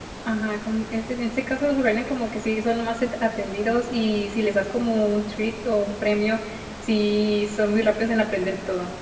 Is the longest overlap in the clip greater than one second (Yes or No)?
No